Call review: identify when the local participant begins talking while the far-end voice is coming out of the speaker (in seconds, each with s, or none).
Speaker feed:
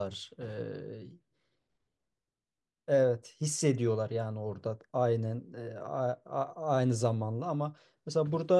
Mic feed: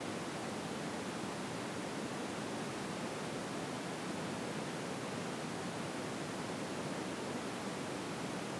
none